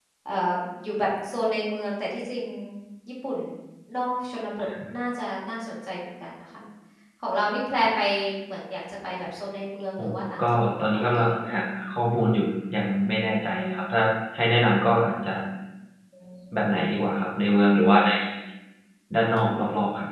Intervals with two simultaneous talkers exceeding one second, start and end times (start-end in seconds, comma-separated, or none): 10.0-11.5